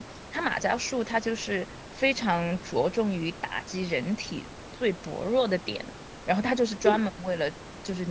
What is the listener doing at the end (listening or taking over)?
listening